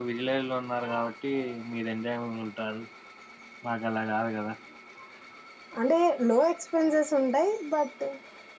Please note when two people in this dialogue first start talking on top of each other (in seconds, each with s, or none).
none